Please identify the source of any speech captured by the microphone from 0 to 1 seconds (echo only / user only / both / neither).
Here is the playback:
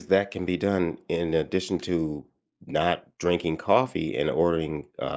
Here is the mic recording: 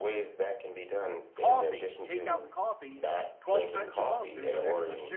echo only